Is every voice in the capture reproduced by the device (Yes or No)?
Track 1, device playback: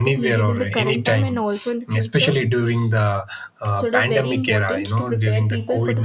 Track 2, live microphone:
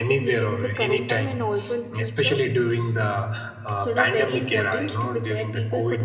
Yes